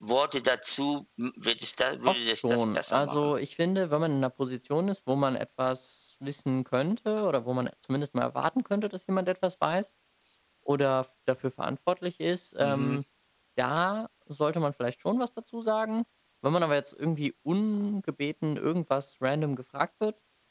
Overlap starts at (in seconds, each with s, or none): 2.1 s